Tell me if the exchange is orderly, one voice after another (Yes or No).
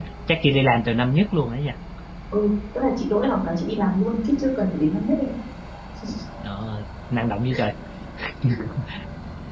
Yes